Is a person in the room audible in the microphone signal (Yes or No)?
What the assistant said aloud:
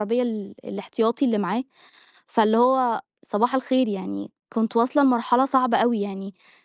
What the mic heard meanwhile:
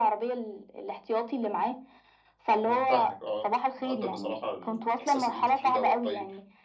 Yes